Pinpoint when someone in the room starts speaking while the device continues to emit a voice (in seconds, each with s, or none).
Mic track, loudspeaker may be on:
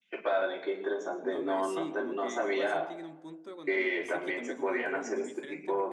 1.2 s